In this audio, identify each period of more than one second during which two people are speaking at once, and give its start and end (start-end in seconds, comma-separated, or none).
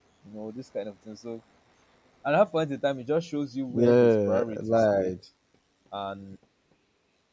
3.7-5.1